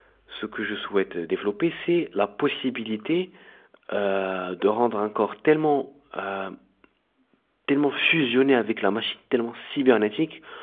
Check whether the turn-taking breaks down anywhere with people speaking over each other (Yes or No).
No